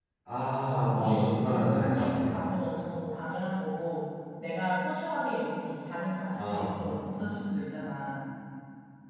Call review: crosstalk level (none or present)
present